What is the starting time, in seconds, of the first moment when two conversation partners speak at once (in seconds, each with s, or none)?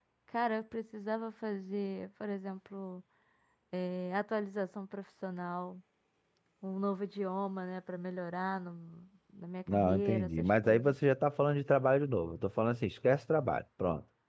9.7 s